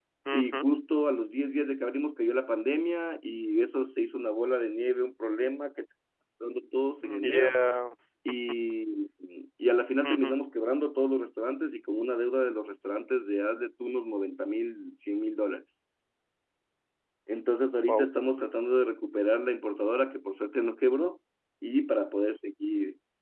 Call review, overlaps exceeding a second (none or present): none